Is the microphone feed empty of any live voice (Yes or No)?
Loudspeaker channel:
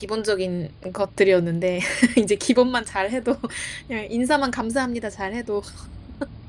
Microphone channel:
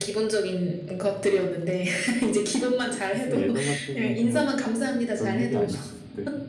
No